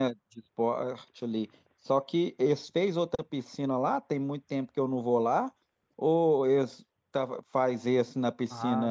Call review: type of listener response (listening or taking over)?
taking over